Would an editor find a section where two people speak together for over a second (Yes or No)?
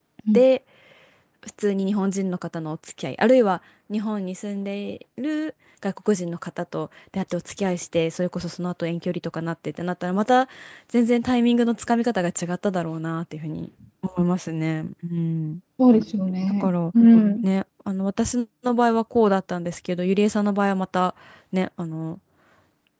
No